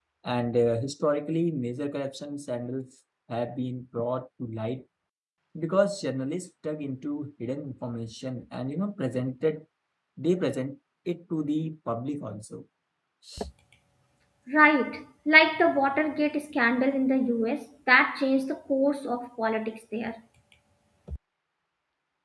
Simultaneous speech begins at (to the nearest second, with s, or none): none